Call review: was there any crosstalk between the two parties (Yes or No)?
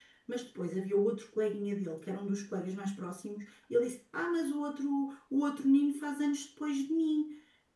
No